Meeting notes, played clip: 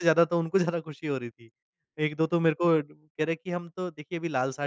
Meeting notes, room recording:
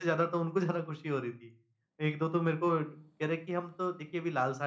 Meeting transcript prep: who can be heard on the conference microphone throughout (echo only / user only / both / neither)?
echo only